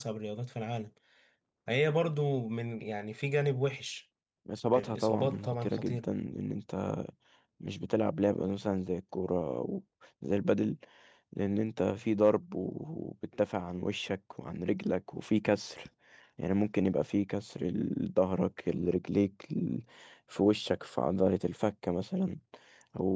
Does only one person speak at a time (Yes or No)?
No